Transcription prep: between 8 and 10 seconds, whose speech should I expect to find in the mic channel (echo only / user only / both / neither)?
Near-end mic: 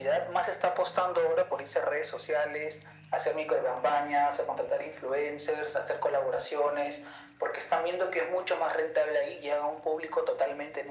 echo only